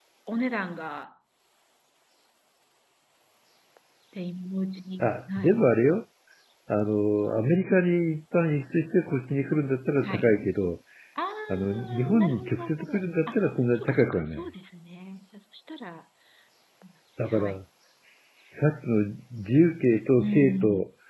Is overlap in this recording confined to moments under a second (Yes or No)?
No